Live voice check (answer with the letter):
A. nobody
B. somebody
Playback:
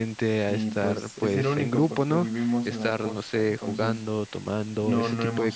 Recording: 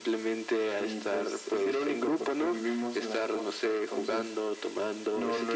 A